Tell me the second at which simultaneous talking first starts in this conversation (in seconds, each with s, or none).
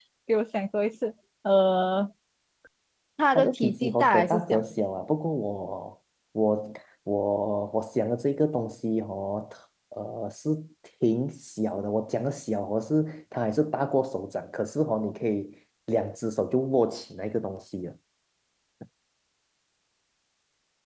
3.4 s